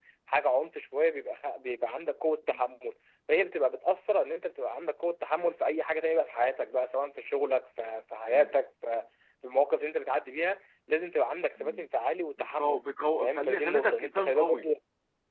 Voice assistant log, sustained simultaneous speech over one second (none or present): present